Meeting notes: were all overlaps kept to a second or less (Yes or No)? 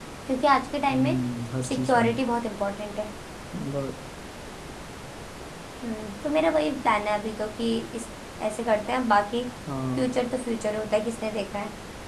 Yes